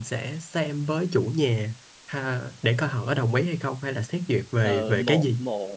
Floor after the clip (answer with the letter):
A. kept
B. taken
B